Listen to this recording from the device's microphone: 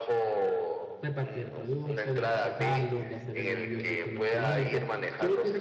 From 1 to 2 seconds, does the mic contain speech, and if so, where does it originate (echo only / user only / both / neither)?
both